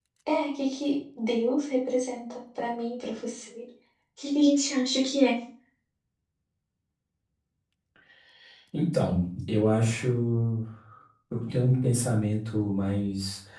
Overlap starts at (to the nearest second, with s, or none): none